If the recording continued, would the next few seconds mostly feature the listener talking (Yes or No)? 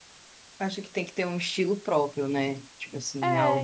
Yes